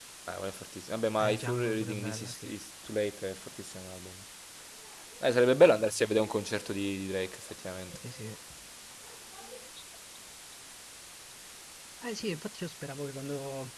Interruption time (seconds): 1.2 s

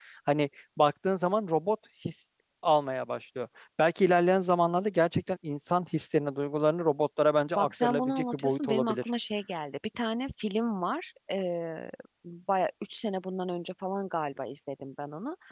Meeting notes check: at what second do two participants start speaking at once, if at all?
7.6 s

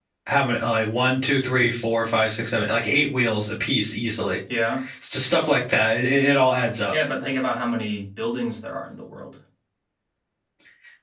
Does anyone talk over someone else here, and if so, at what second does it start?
none

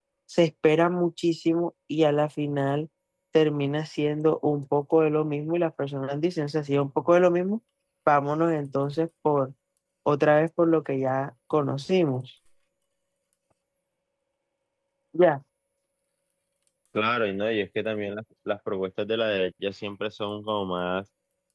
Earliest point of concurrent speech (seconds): none

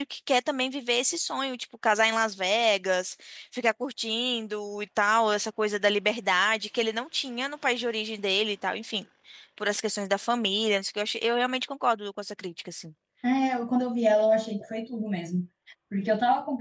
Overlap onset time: none

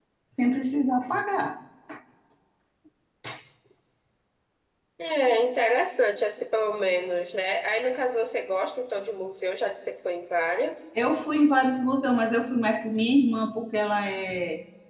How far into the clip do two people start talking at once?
none

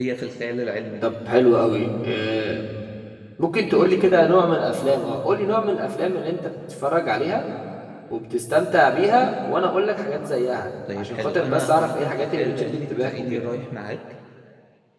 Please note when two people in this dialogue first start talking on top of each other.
10.9 s

